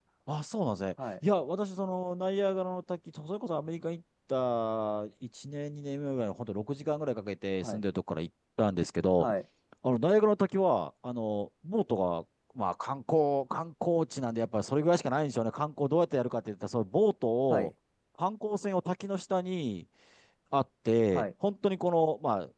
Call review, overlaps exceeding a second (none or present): none